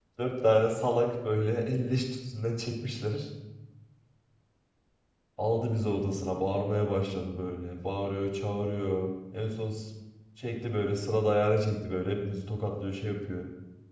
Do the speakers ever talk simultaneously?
No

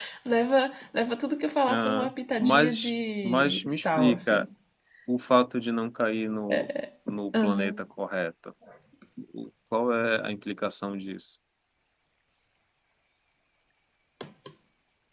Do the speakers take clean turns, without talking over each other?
No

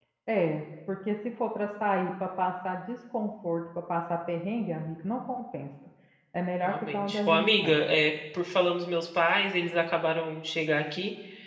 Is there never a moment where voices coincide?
No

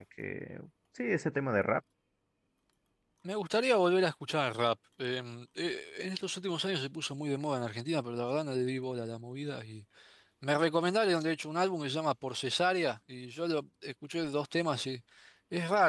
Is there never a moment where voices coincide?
Yes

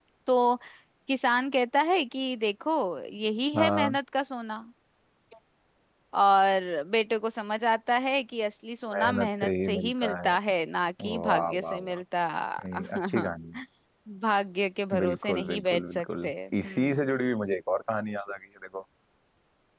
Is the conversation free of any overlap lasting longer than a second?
No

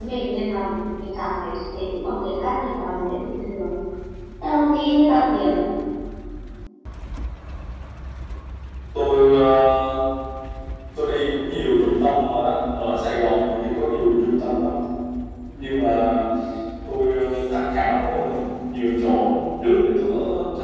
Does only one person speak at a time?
Yes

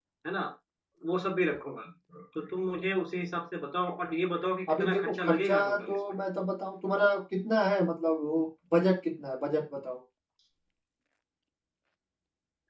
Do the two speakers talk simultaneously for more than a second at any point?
Yes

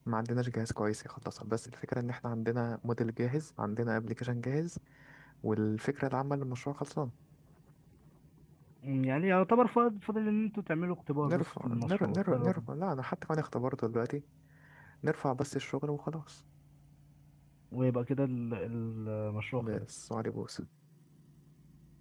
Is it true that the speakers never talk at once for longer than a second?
No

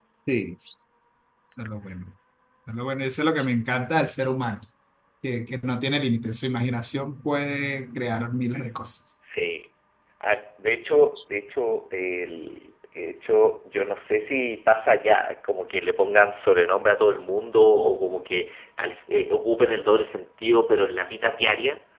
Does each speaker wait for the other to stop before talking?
Yes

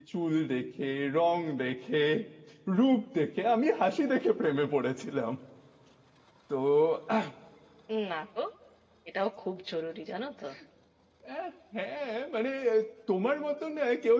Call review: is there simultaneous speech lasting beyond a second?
No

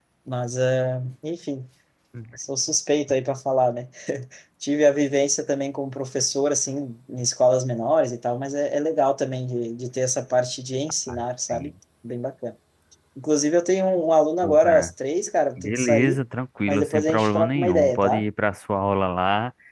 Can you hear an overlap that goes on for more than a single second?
Yes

